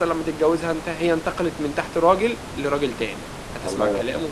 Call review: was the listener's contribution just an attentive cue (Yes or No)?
Yes